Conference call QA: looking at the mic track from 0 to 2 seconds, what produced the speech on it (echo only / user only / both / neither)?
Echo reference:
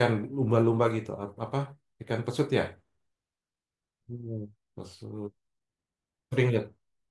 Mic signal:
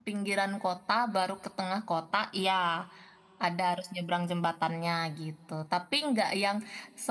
user only